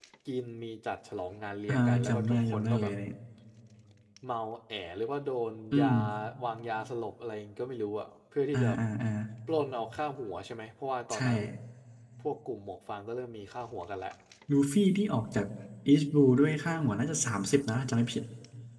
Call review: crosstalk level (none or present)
present